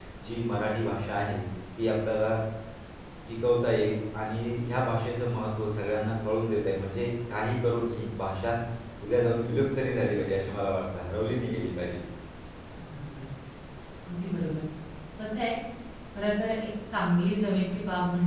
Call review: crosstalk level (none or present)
none